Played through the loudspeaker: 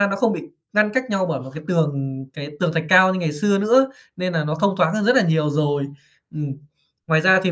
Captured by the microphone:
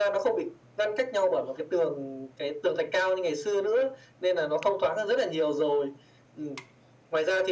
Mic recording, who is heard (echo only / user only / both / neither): echo only